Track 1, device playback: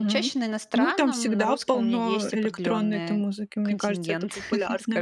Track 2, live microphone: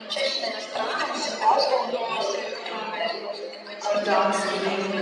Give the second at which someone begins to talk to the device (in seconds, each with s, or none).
3.9 s